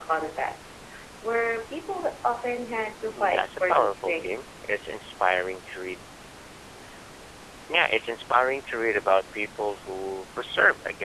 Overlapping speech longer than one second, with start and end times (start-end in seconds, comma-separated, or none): 3.1-4.5